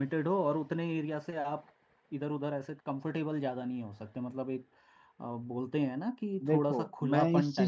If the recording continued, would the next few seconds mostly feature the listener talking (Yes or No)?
Yes